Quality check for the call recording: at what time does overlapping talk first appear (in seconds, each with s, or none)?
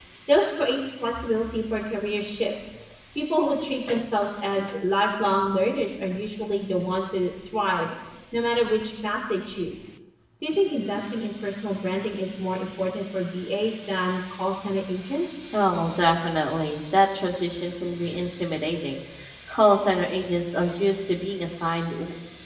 none